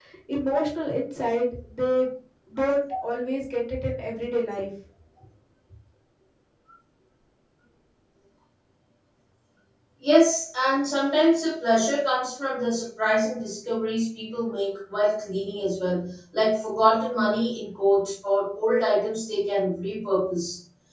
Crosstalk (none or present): none